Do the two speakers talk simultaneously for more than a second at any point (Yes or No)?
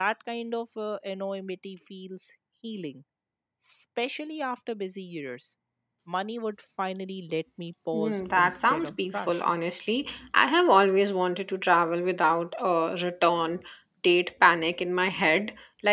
Yes